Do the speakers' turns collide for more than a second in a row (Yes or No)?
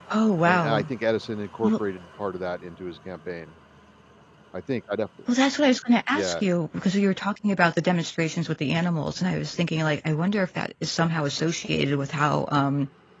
No